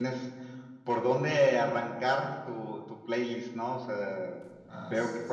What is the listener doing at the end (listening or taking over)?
listening